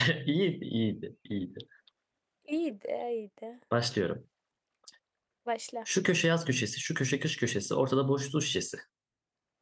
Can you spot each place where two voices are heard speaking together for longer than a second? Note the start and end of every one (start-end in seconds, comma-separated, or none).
none